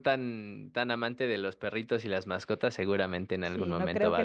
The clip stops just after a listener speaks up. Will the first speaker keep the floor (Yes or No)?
No